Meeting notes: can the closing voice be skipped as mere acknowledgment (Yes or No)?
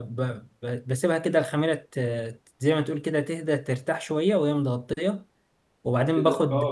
No